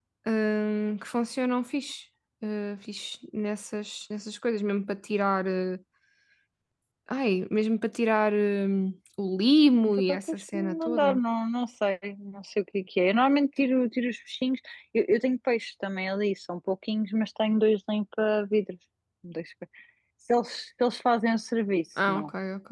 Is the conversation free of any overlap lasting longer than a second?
No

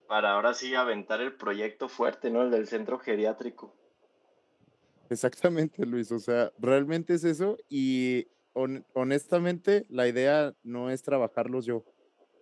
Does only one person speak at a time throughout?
Yes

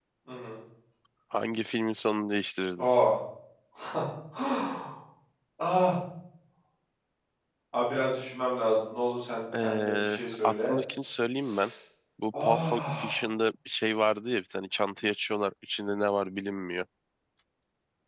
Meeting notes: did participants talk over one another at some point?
Yes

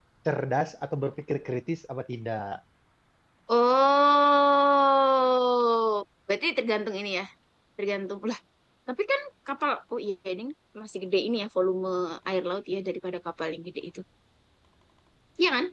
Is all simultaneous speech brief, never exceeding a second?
Yes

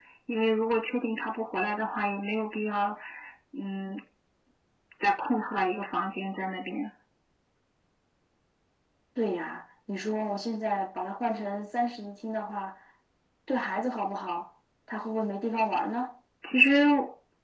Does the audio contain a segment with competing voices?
No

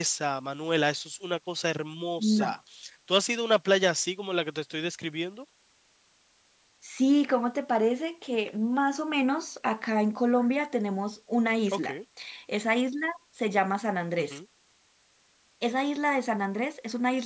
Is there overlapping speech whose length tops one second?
No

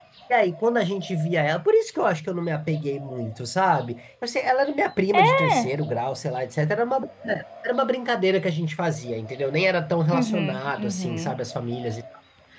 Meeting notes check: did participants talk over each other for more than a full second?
Yes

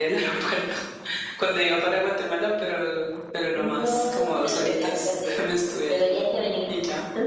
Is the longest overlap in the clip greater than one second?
Yes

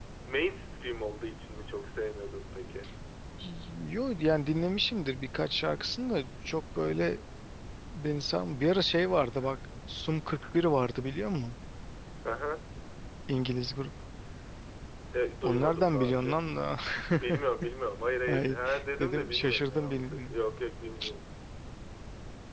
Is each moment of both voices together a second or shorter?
No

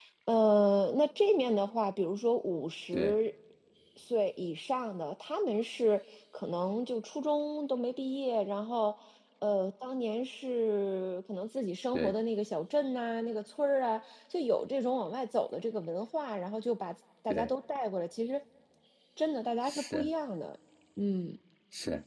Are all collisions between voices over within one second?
Yes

